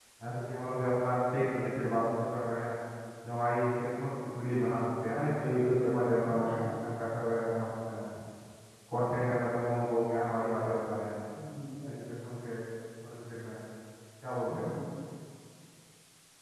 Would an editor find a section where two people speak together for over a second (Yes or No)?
No